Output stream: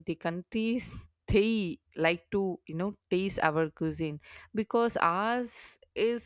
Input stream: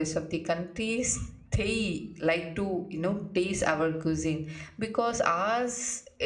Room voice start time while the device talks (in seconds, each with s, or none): none